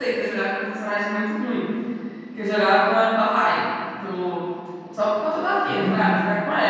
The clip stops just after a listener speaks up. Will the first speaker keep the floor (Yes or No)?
Yes